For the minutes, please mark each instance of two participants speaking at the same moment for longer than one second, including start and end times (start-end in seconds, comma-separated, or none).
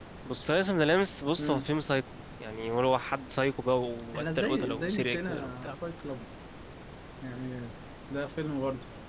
4.1-5.7